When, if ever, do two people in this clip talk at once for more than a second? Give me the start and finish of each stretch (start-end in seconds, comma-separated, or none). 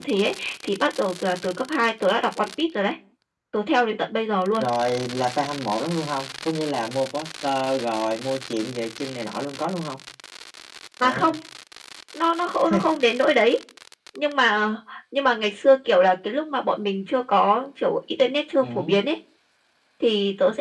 none